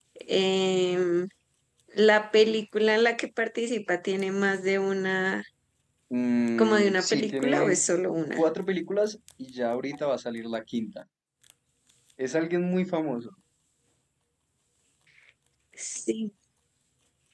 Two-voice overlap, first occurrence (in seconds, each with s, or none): 6.6 s